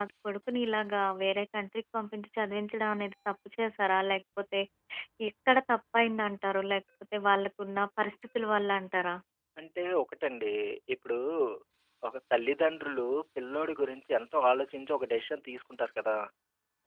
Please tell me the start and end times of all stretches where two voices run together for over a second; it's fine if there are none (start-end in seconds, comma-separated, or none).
none